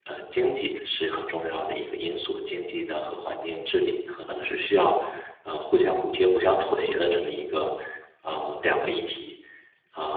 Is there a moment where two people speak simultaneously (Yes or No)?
No